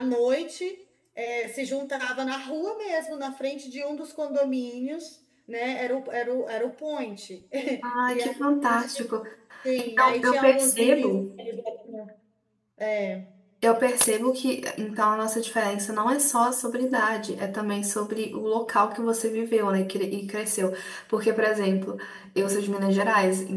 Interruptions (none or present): present